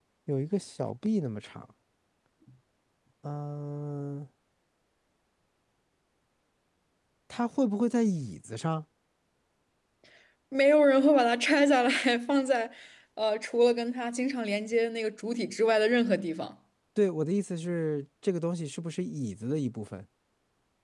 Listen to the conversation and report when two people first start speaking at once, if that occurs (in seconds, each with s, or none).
none